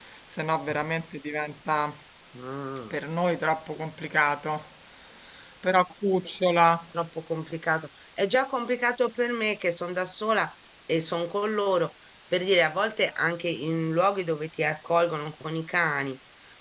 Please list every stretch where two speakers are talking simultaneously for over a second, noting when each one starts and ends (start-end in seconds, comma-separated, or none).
none